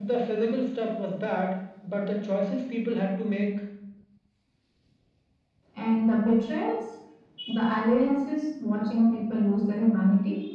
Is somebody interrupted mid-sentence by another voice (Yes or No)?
No